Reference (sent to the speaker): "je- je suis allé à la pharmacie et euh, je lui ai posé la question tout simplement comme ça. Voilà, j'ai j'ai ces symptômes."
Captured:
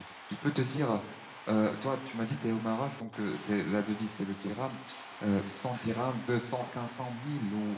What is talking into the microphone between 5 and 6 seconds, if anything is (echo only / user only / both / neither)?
user only